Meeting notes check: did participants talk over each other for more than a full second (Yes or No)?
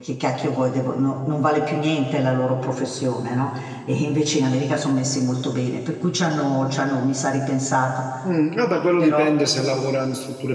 No